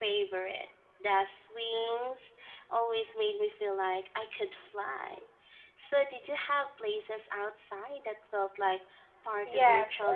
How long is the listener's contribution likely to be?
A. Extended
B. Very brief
A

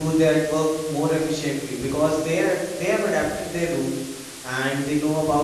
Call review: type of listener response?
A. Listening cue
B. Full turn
A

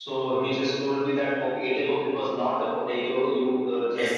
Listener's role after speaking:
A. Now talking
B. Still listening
B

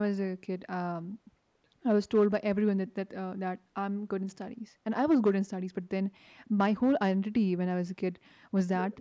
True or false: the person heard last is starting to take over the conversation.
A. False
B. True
A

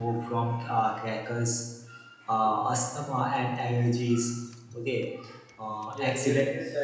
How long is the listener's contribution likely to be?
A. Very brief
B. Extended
B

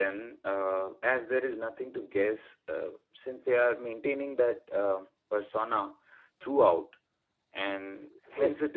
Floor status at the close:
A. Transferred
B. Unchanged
B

